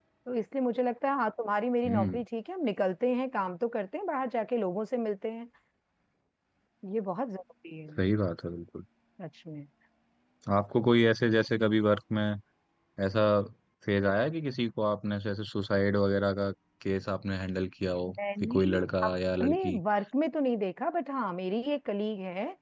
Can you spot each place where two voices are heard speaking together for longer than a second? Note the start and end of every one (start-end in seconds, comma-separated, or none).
18.1-19.8